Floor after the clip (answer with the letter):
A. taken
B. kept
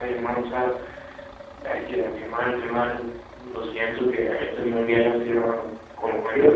A